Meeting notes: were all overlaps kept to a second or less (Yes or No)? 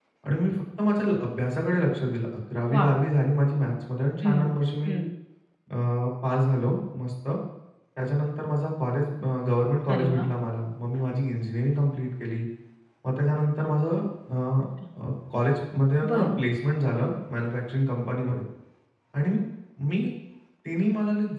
Yes